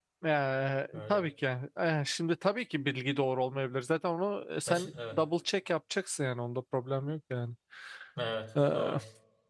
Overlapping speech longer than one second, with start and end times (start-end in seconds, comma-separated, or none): none